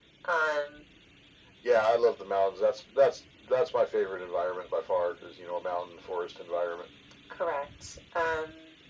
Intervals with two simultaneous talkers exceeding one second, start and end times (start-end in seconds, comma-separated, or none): none